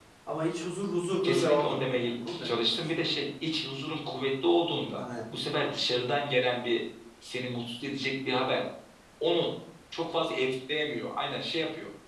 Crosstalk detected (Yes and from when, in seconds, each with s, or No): Yes, from 1.2 s